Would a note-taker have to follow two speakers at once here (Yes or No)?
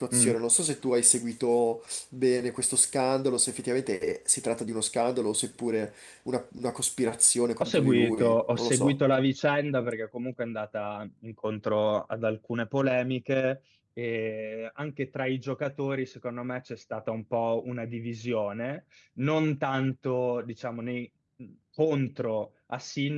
Yes